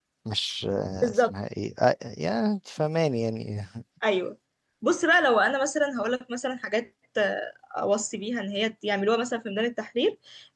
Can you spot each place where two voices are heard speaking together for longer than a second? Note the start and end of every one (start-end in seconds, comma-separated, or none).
none